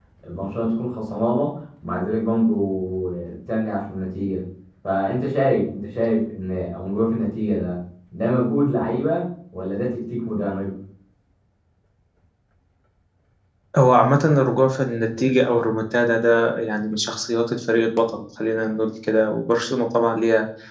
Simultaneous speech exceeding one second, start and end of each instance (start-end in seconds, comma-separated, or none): none